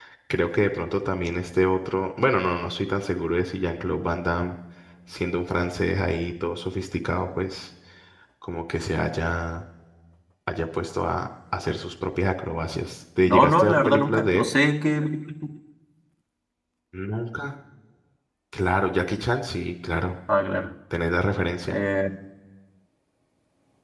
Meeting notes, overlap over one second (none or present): present